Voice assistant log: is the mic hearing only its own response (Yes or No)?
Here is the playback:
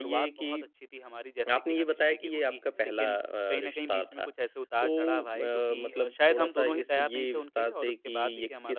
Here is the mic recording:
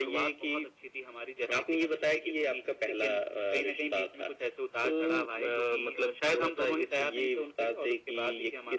Yes